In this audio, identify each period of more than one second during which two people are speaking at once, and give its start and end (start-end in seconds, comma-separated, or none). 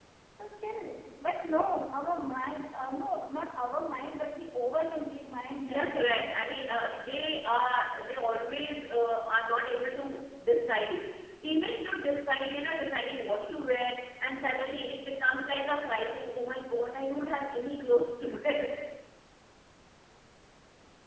5.7-7.2